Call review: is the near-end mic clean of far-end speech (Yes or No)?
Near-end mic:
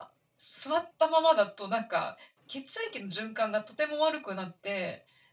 Yes